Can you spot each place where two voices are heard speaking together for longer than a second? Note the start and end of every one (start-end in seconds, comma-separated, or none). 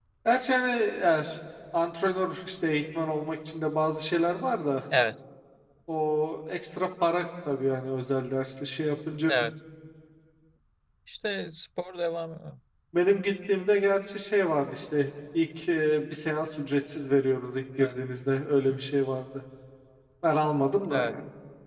none